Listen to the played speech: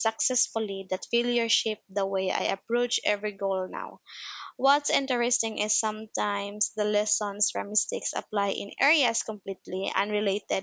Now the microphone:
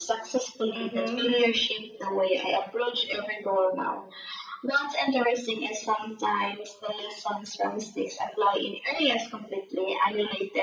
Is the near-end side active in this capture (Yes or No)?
Yes